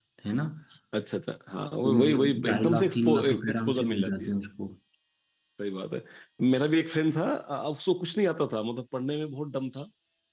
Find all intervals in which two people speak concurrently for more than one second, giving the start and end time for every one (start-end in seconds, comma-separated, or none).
1.8-4.3